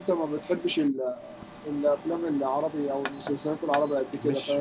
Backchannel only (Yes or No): No